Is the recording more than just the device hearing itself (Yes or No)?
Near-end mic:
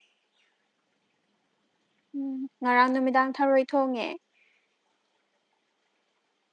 Yes